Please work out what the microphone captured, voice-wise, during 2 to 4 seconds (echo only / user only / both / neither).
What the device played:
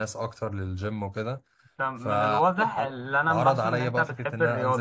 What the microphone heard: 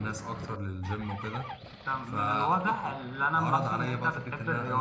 echo only